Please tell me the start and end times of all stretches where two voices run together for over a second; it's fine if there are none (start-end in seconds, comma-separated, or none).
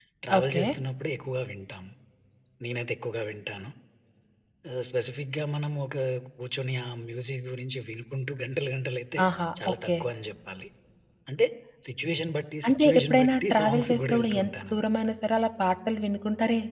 12.7-14.7